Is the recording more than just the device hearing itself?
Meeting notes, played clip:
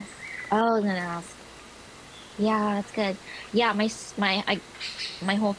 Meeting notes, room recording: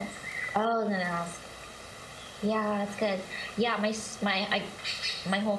No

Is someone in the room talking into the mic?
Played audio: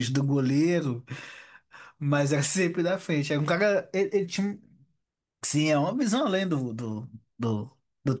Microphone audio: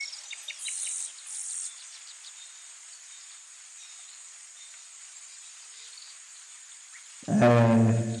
Yes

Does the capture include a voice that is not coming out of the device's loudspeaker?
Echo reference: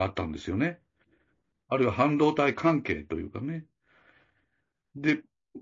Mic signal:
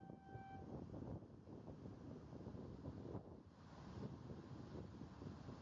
No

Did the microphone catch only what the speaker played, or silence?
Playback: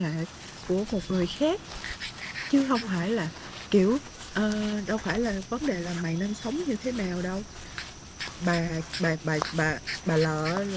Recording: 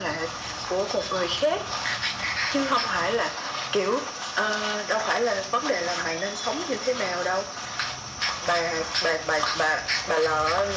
Yes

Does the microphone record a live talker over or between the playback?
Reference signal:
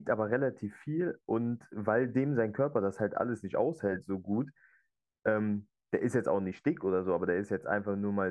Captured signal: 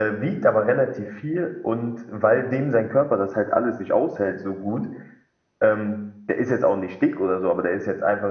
No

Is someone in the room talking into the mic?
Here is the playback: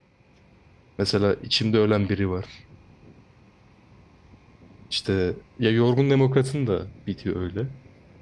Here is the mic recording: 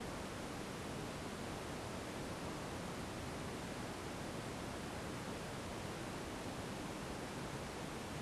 No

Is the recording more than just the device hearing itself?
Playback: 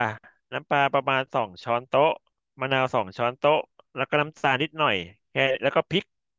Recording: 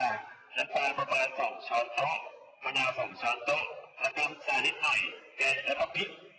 No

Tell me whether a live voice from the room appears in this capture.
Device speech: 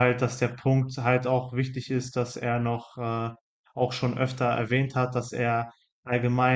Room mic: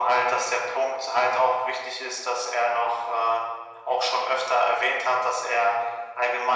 No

